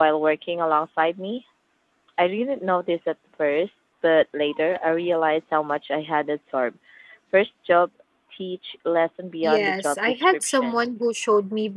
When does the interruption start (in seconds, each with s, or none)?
9.4 s